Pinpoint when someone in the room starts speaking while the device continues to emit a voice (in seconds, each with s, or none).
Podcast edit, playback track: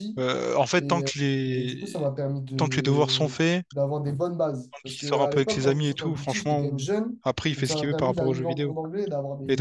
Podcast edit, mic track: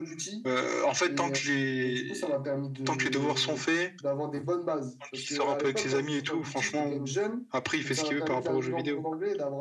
none